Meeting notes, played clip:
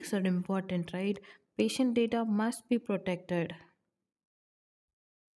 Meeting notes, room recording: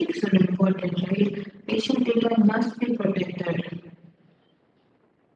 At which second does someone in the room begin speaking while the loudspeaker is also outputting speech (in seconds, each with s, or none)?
none